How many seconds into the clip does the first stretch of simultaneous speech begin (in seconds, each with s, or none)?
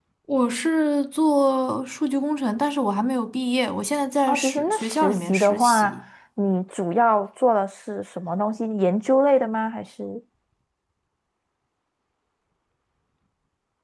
4.3 s